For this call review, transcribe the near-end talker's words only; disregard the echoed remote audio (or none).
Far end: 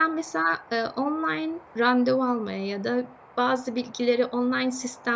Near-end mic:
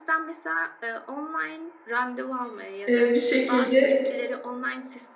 Eee, bir şekilde